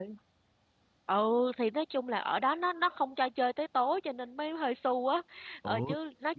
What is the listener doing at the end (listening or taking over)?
listening